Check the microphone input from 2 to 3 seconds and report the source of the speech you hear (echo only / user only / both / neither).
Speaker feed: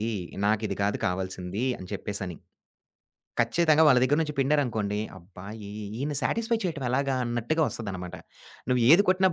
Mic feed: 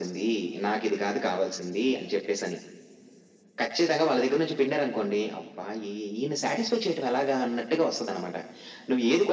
echo only